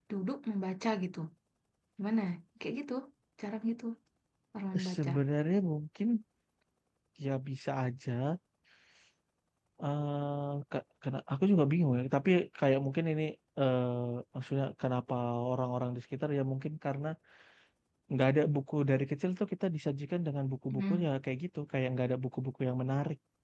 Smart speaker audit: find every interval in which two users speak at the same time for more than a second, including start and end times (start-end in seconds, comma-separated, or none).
none